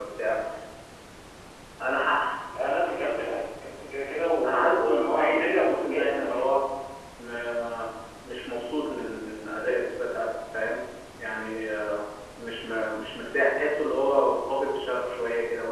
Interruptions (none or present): present